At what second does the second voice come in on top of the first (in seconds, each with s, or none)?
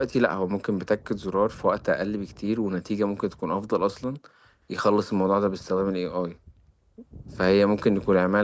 none